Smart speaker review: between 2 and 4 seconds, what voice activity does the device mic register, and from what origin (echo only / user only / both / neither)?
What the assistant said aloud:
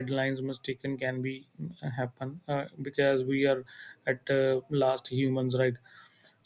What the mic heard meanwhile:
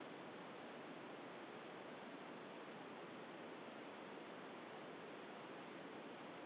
neither